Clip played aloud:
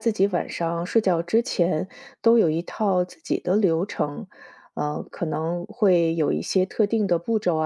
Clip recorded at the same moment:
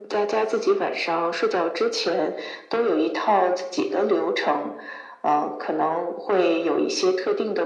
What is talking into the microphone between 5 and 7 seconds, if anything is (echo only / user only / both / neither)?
echo only